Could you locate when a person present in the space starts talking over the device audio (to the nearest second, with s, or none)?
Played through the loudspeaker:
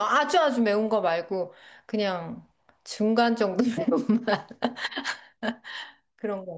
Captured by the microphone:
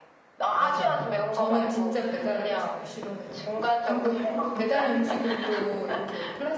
1 s